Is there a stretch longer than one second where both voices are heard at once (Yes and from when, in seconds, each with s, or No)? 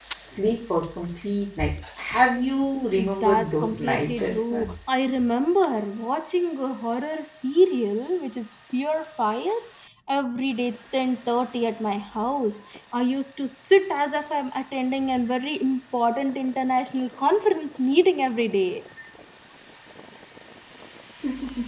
Yes, from 3.0 s